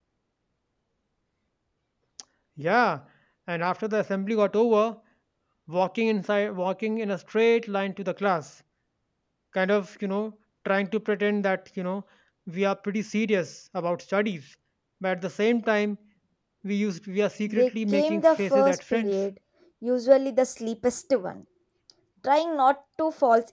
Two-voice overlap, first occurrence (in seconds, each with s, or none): 17.5 s